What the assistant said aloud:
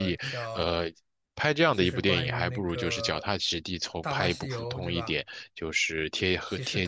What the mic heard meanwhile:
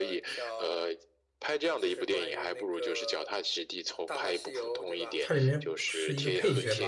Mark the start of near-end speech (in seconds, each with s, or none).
5.2 s